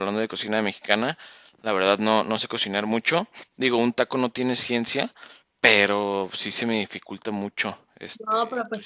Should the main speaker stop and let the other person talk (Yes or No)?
Yes